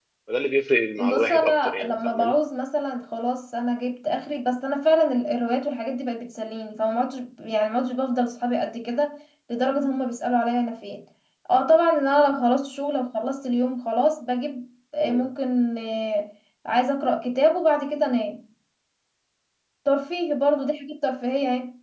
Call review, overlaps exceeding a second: present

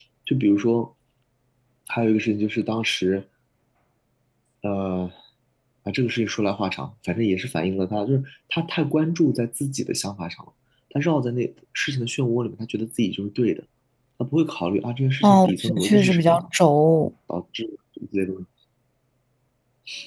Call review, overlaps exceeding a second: present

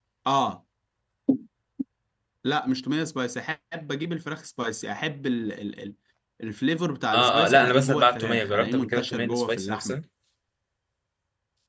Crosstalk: present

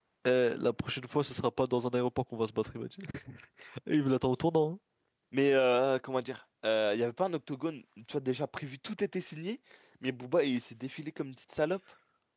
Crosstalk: none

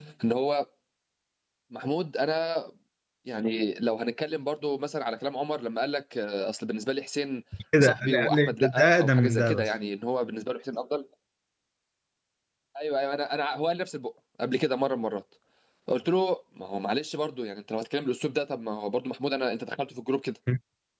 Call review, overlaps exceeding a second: present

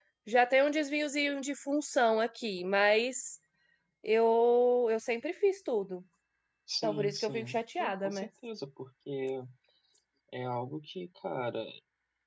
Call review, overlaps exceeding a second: present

